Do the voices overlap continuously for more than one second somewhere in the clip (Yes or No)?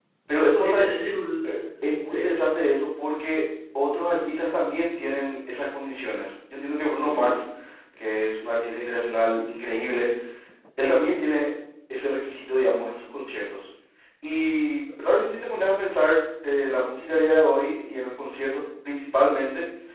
No